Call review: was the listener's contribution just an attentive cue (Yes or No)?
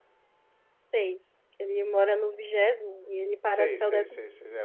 No